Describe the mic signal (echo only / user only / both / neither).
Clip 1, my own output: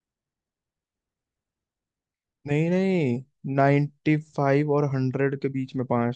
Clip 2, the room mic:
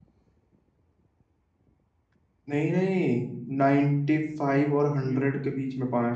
both